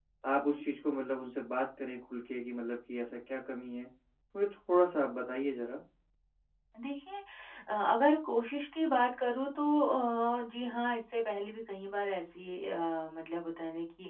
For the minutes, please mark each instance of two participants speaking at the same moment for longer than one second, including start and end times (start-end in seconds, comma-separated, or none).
none